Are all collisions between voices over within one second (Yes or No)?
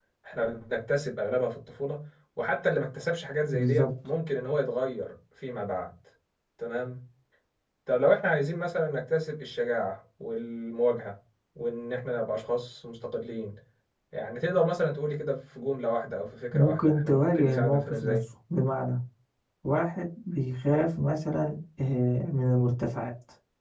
No